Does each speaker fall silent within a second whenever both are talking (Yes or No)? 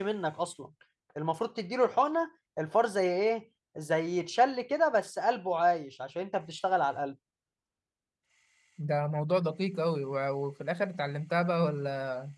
Yes